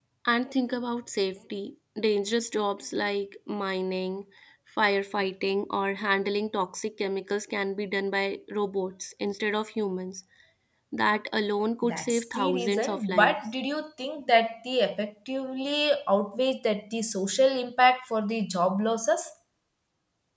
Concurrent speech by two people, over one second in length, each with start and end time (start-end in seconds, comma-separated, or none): 11.8-13.3